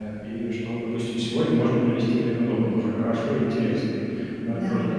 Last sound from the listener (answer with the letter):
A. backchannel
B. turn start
A